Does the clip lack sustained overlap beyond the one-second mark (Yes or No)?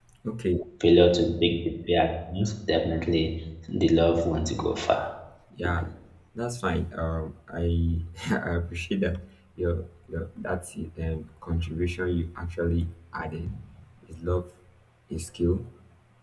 Yes